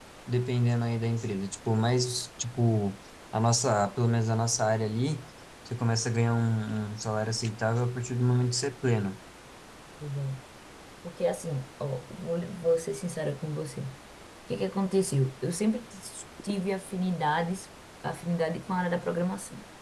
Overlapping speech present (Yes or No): No